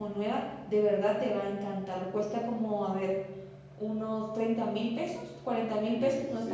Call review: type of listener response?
taking over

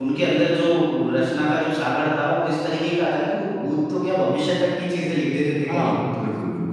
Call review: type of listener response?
taking over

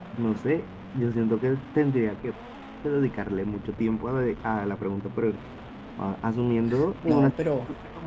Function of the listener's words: listening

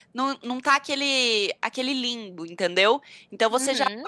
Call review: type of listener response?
listening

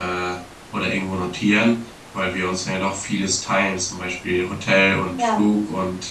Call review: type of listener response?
listening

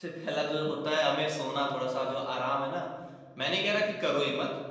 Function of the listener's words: listening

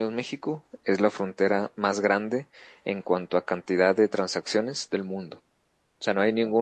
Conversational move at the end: listening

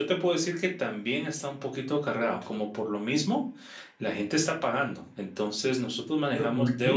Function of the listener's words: taking over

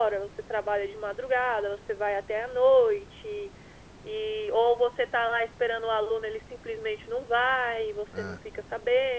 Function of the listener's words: listening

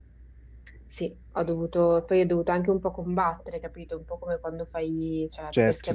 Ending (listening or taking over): listening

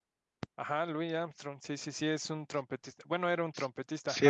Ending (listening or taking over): taking over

